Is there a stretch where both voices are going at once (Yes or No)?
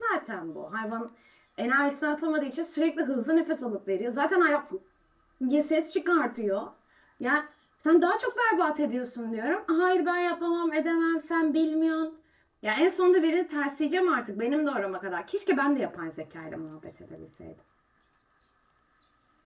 No